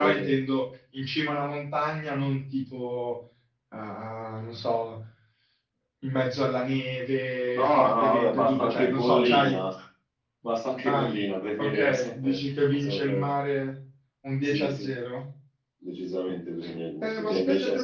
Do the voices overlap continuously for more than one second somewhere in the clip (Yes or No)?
Yes